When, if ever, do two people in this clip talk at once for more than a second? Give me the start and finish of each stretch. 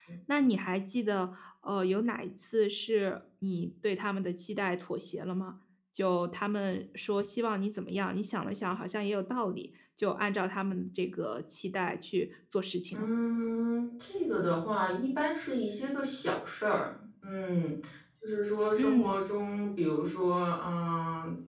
none

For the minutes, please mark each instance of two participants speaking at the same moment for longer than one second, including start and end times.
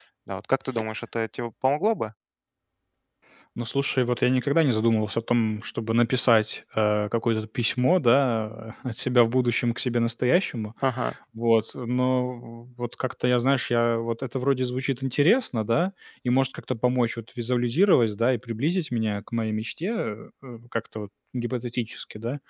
none

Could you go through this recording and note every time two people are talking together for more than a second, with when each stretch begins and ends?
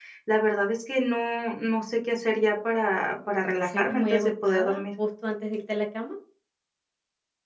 3.4-4.8

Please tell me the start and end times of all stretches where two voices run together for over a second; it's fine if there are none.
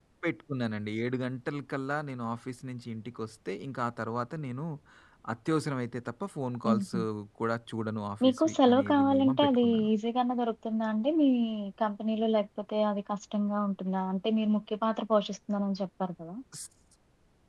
8.2-9.9

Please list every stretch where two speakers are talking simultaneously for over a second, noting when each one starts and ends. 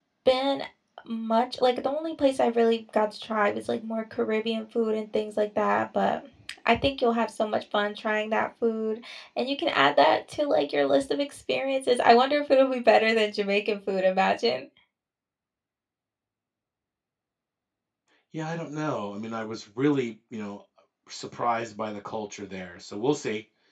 none

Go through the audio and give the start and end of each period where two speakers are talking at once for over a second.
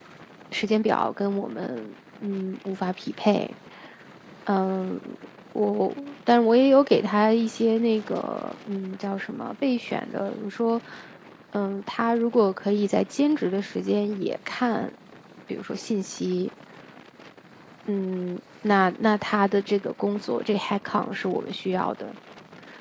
none

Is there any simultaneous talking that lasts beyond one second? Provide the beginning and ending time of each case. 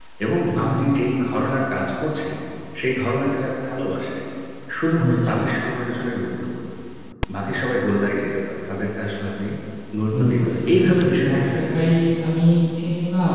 10.1-11.9

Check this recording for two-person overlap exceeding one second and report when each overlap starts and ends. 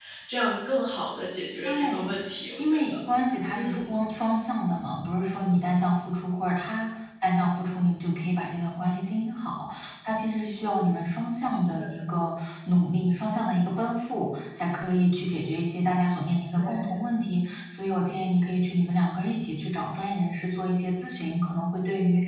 none

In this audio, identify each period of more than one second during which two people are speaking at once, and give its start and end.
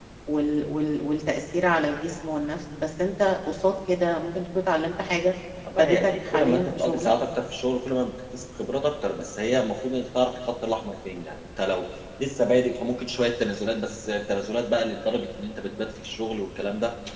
5.8-7.1

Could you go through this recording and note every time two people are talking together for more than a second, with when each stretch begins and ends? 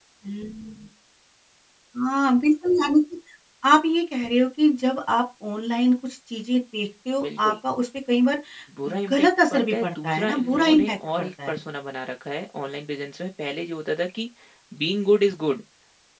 9.1-11.6

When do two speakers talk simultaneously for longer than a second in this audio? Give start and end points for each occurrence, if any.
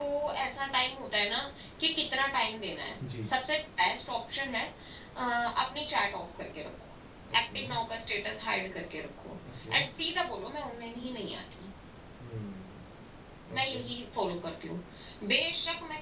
none

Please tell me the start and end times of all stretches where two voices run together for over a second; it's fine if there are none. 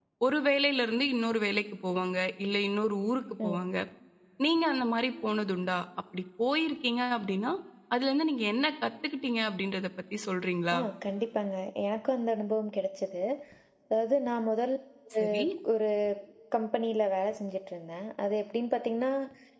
none

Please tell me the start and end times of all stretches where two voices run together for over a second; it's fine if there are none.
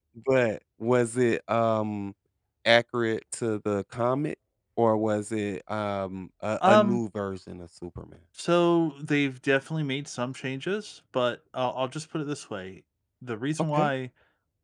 none

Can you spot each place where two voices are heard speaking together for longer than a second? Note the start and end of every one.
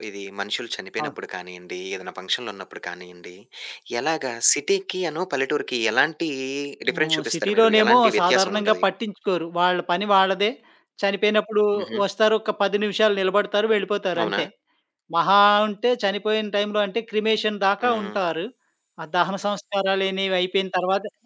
6.9-8.8

